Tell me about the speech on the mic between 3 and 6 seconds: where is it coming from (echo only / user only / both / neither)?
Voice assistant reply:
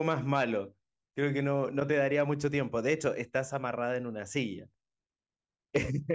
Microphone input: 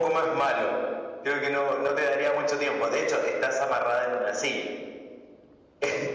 echo only